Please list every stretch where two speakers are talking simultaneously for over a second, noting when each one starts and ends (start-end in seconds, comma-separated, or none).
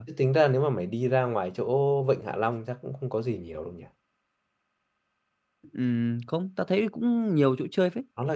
none